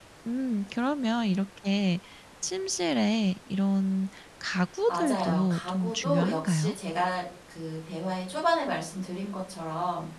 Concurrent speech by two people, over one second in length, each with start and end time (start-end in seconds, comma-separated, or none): 4.9-6.7